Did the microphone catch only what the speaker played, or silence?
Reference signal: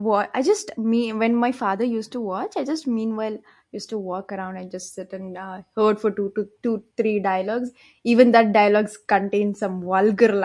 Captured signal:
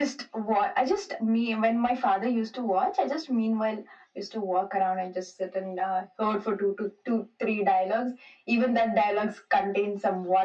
Yes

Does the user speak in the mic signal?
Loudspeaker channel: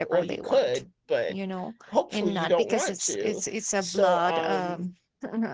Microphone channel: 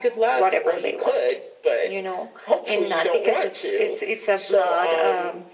No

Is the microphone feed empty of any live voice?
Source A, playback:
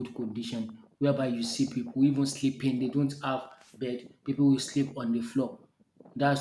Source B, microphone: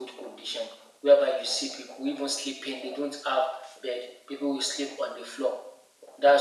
Yes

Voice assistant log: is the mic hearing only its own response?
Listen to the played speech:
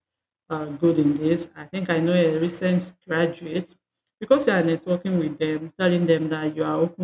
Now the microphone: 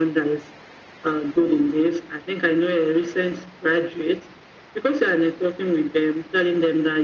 Yes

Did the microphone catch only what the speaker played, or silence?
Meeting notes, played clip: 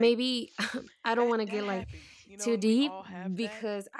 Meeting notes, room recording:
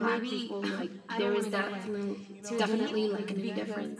No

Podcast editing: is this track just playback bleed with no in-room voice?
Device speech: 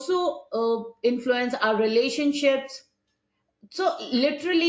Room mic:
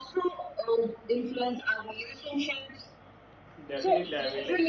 No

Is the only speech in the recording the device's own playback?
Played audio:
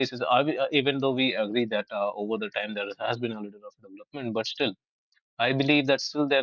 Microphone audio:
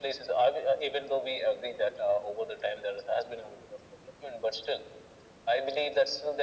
Yes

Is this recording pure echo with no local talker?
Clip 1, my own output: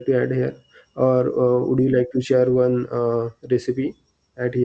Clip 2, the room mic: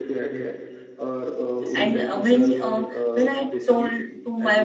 No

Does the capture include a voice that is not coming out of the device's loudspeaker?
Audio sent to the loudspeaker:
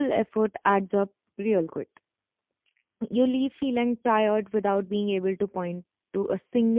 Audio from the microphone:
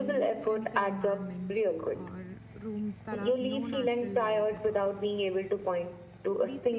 Yes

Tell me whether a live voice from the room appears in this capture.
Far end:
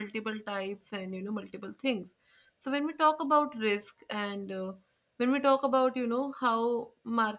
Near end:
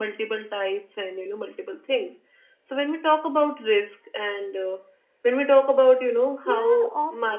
Yes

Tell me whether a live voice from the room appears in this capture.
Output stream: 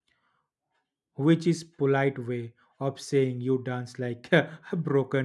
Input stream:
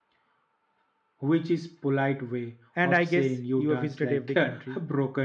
Yes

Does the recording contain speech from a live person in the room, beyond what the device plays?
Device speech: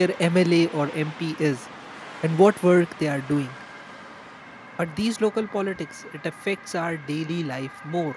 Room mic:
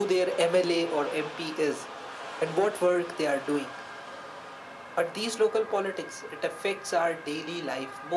No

